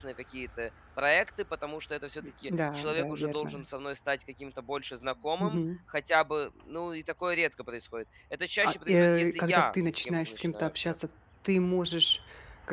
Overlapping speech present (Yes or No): Yes